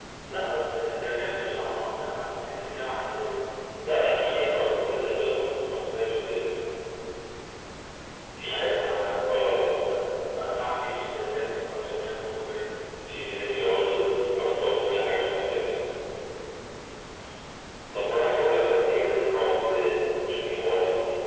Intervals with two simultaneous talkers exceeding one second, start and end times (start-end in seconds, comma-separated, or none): 18.1-19.3